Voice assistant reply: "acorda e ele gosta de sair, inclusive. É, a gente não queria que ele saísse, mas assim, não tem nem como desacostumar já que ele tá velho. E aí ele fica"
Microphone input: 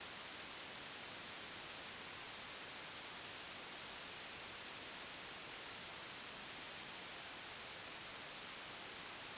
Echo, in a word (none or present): none